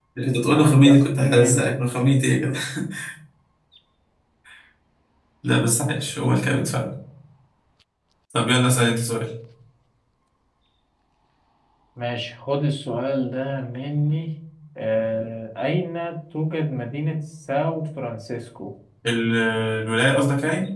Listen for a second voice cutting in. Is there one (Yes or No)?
Yes